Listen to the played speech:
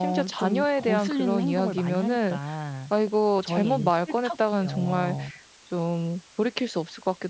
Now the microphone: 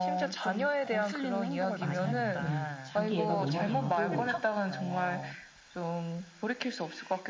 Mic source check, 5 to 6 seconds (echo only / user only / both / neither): echo only